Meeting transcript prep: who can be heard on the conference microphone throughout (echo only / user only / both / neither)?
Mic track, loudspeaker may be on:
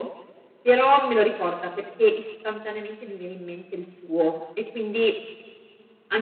echo only